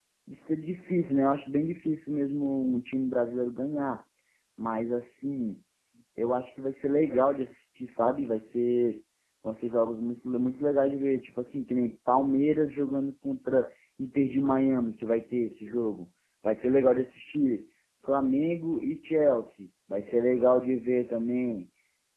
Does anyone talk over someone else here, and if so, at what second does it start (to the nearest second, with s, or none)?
none